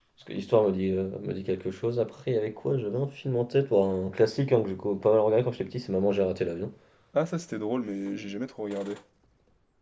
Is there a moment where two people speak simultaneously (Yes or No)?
No